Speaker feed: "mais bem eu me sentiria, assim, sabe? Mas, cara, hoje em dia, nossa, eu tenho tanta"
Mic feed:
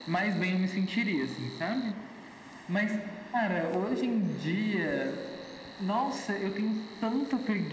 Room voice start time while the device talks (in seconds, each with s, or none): none